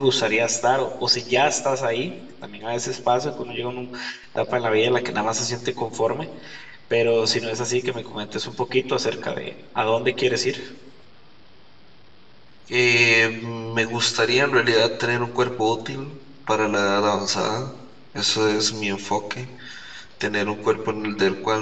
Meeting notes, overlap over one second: none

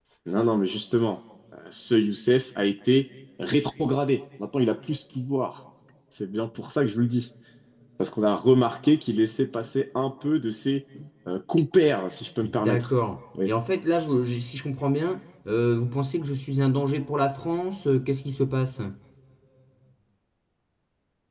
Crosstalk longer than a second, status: none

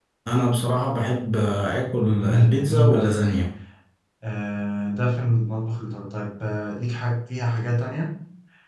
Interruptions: present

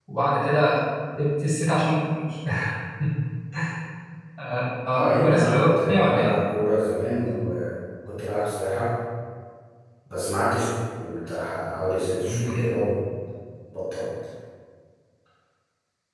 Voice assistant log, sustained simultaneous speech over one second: present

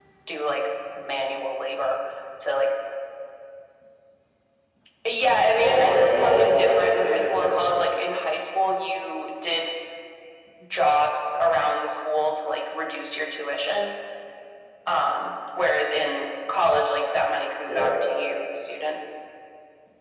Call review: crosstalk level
present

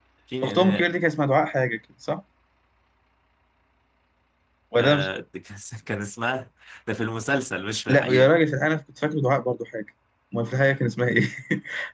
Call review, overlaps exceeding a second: none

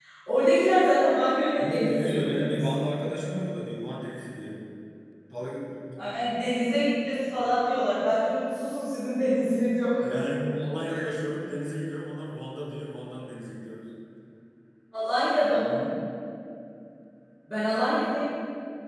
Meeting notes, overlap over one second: present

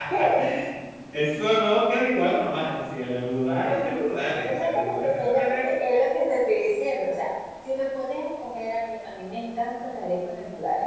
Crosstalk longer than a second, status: present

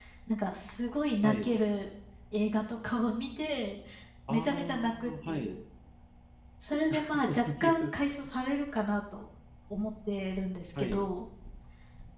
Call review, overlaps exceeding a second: present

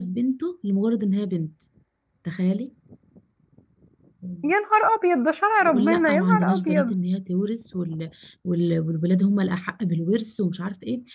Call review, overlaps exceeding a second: present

